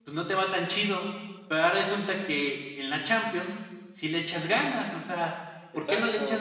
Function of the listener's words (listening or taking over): listening